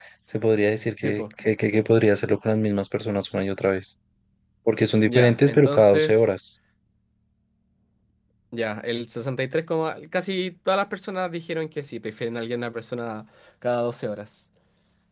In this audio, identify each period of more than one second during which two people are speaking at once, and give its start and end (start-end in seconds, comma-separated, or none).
5.0-6.3